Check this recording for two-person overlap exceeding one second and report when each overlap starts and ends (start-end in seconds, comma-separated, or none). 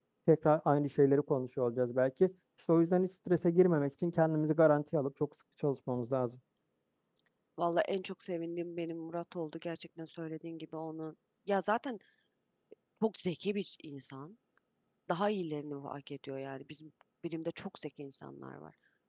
none